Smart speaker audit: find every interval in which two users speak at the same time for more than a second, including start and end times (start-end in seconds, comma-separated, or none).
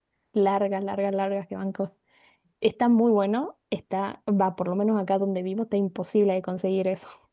none